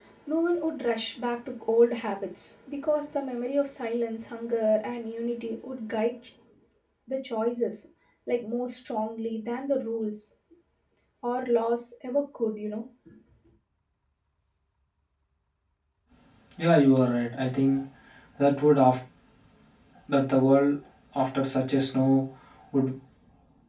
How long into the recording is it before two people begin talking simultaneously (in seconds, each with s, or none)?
none